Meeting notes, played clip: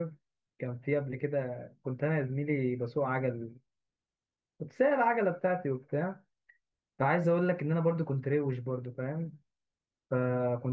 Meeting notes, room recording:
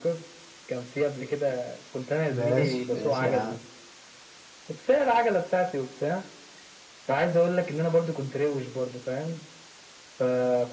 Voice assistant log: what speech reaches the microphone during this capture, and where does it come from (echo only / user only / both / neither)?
both